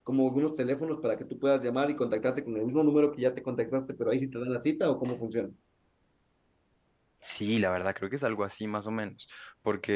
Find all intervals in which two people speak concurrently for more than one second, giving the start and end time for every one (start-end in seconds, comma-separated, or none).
none